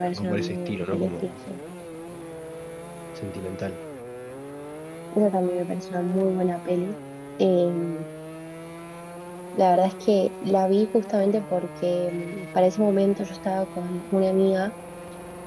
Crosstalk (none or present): present